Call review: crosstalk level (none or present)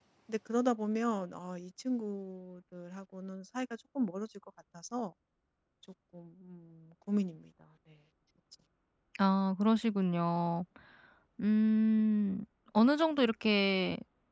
none